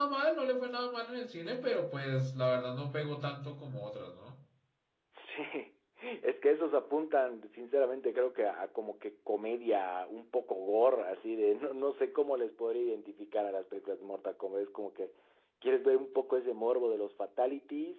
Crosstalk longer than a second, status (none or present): none